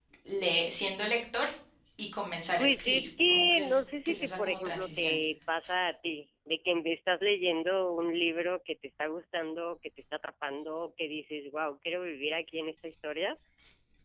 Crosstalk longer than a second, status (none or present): present